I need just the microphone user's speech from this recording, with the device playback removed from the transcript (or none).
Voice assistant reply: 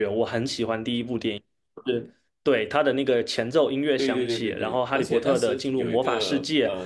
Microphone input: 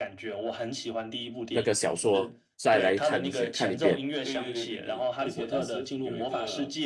那个小说，再来看一些看一遍。